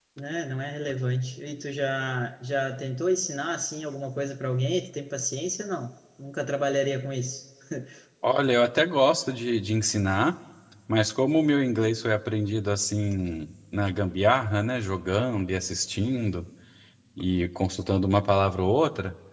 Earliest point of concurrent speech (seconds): none

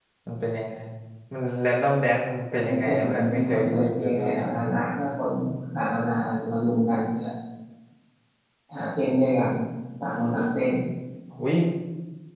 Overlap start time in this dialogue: 2.6 s

